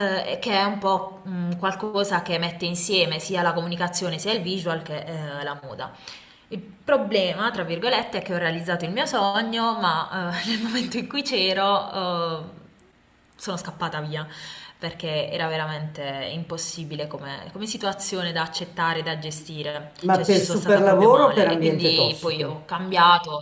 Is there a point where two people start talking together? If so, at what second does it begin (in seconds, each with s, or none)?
20.0 s